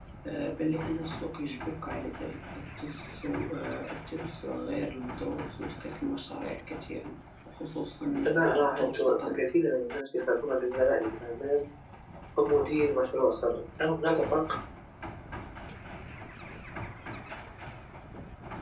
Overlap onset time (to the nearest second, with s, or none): 8 s